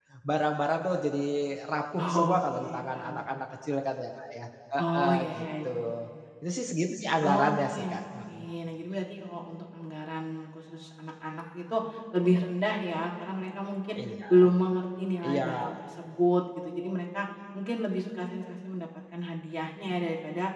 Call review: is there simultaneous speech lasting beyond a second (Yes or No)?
Yes